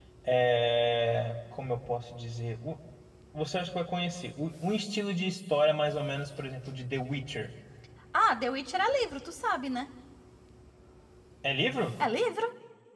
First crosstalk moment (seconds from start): none

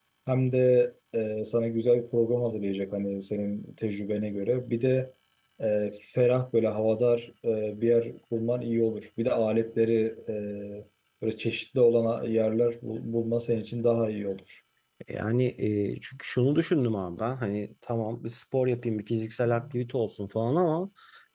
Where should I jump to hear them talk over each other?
none

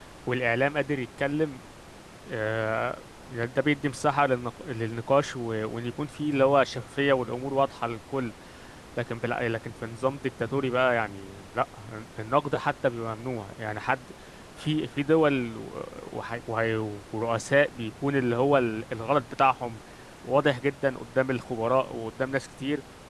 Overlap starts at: none

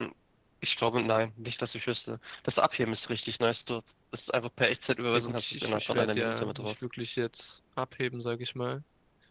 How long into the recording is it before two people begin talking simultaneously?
5.1 s

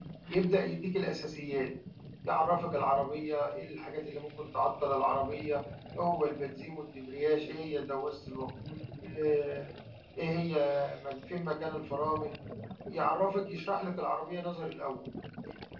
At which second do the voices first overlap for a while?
none

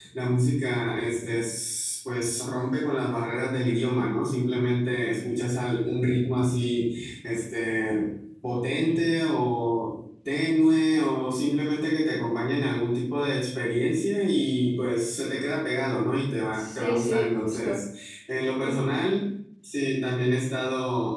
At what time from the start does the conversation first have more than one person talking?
16.5 s

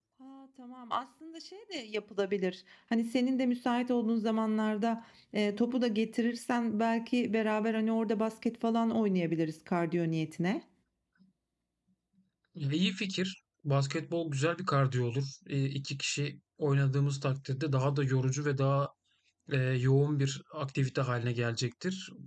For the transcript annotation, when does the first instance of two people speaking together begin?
none

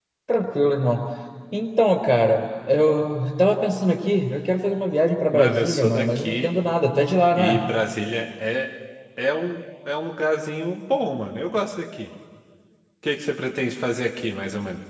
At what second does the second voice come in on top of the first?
5.3 s

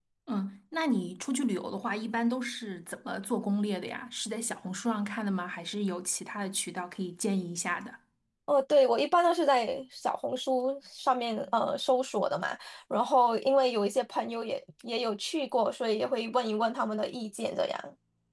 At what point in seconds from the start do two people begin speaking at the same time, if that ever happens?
none

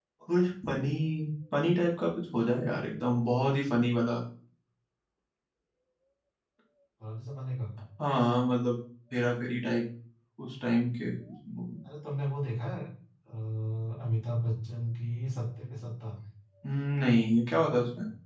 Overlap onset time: none

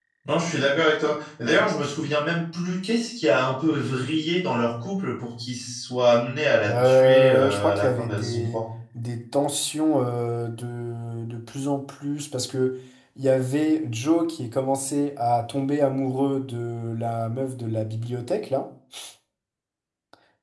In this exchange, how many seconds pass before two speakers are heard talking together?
6.7 s

